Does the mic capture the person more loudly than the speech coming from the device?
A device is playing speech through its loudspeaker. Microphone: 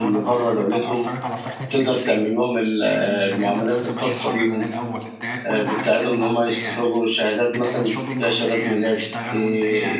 Yes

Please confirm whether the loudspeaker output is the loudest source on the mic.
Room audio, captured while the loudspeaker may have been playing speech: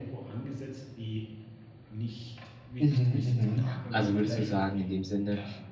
No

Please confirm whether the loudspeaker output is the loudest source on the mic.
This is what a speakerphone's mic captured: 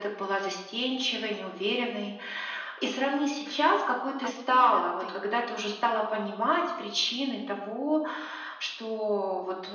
Yes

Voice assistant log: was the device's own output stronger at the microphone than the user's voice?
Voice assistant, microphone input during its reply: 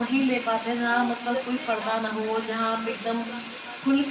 Yes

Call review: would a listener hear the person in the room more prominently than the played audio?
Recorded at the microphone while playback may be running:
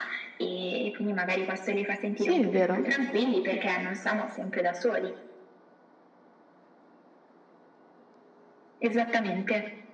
Yes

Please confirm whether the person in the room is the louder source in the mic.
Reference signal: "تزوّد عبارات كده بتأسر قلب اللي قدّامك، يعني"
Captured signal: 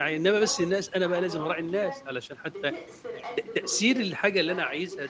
Yes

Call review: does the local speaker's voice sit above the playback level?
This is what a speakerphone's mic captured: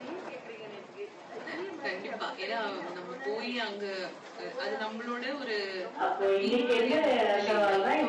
Yes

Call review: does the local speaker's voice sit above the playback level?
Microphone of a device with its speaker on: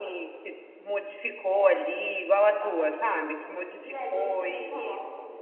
Yes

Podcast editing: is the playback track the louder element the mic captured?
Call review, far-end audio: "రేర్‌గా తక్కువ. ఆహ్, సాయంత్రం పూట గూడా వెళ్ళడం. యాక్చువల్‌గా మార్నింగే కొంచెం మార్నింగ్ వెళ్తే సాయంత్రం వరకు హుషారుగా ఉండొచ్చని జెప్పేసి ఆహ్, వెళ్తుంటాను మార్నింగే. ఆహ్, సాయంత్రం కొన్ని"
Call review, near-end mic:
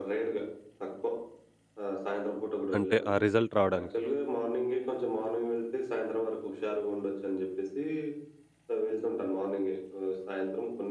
No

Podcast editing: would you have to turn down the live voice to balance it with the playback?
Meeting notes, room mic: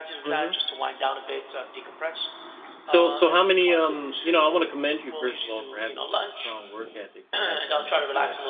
Yes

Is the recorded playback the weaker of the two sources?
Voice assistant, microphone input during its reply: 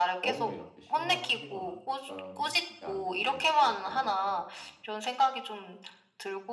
No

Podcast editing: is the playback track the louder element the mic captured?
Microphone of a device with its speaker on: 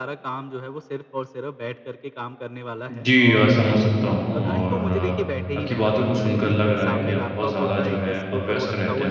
No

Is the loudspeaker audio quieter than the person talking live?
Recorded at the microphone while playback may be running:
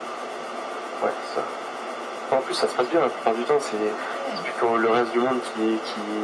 No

